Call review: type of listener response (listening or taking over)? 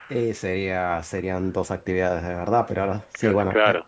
listening